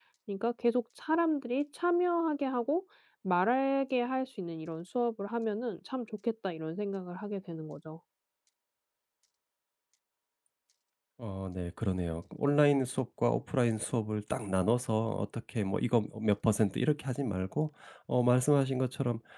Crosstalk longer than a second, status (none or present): none